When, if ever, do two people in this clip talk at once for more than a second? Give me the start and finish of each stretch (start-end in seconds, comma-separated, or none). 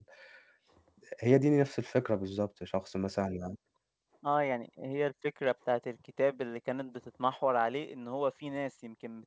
none